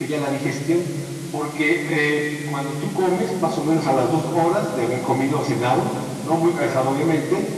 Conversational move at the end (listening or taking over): listening